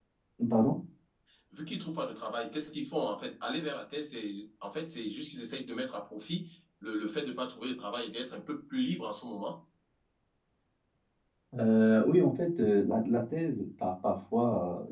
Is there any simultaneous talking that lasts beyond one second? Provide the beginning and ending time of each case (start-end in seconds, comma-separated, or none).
none